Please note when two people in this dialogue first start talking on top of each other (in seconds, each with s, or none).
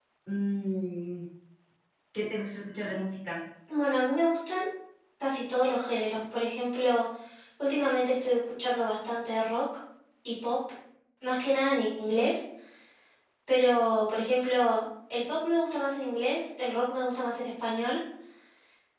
none